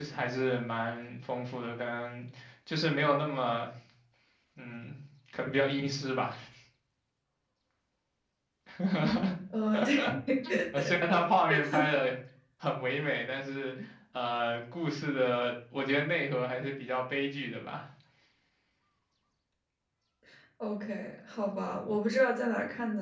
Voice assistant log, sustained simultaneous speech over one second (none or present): none